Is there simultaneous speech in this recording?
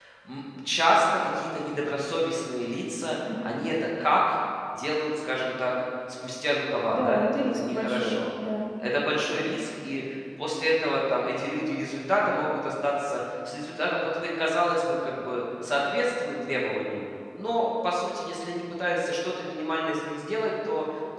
Yes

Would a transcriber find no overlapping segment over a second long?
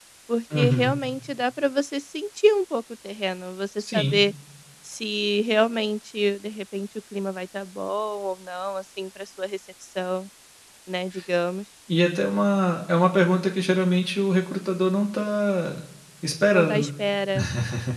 Yes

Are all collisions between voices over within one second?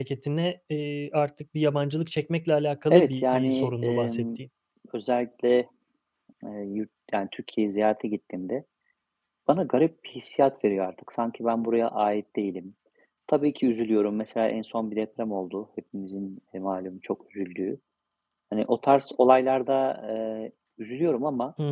No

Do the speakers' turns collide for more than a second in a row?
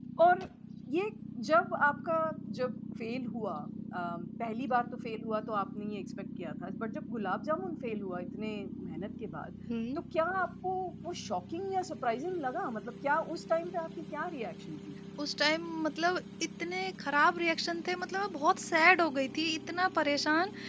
No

